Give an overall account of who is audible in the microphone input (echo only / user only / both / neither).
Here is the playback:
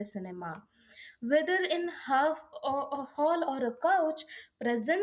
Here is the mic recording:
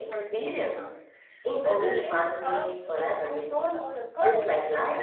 both